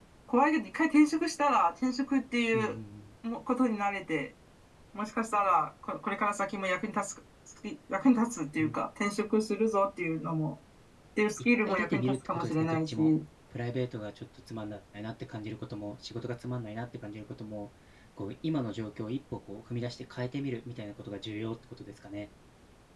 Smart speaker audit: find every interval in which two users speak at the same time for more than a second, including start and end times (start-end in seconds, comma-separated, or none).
11.6-13.1